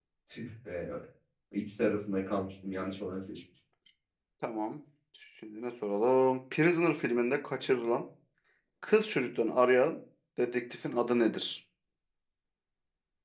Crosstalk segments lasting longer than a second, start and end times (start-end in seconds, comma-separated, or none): none